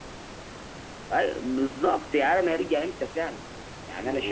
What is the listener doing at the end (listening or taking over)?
taking over